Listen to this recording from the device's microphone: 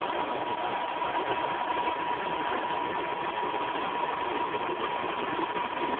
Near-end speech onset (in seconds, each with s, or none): none